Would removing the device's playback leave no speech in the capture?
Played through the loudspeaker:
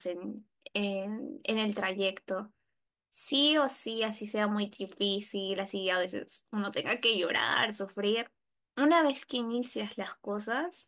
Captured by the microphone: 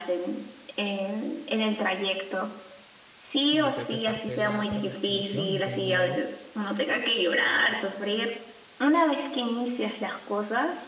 No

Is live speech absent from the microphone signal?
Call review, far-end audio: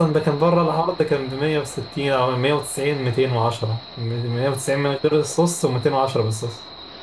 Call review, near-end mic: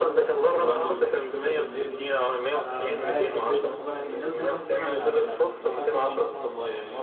No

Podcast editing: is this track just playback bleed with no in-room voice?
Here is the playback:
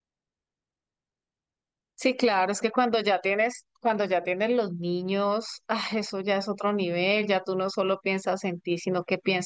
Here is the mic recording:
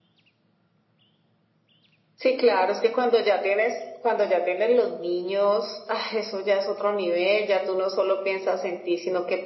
Yes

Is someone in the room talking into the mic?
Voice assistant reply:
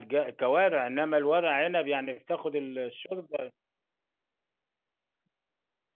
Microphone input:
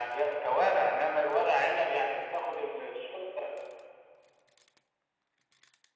No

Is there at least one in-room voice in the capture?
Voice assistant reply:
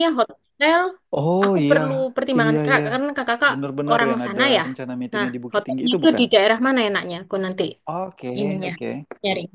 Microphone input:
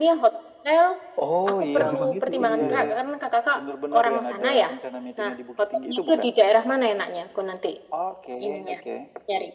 Yes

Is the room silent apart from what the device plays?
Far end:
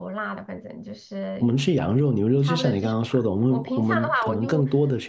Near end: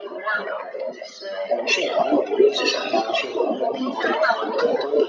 Yes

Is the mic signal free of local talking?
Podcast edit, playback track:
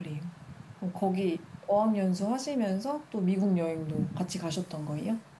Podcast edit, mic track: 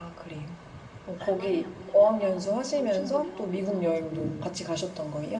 No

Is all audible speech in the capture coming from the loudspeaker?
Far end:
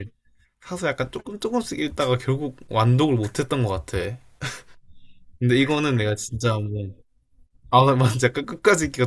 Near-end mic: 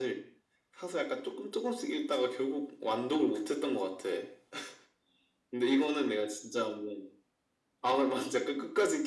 Yes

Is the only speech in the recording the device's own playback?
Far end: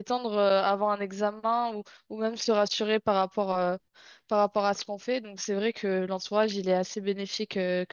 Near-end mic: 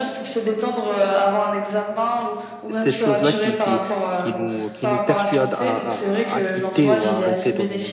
No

